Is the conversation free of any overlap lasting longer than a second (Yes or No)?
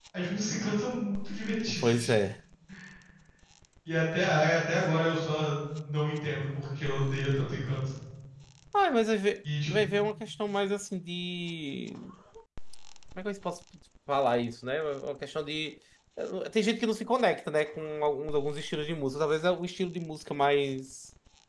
Yes